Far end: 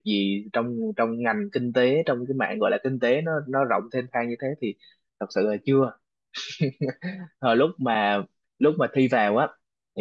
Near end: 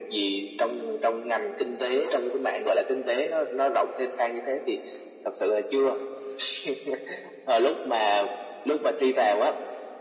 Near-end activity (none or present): none